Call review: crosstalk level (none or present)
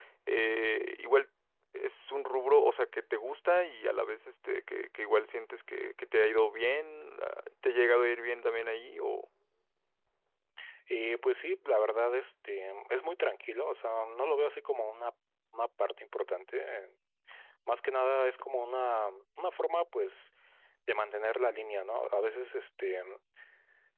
none